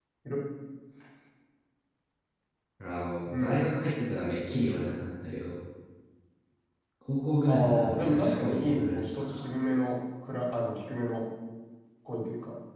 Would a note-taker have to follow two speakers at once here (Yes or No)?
Yes